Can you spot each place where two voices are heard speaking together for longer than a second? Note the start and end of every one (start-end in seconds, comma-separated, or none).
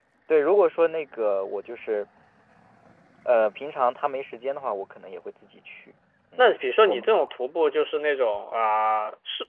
none